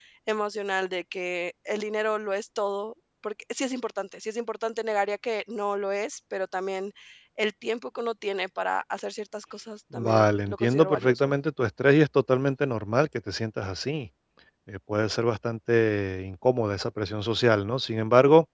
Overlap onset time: 10 s

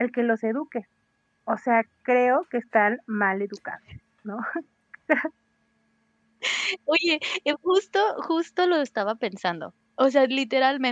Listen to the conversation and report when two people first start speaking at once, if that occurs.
none

